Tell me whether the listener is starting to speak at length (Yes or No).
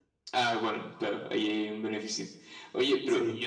No